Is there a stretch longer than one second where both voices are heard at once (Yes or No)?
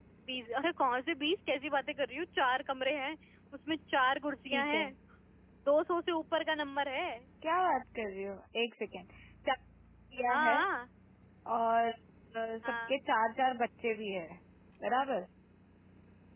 No